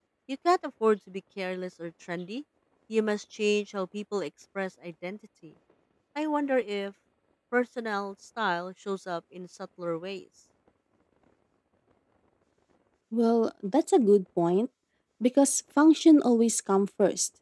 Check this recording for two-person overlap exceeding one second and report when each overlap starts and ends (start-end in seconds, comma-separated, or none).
none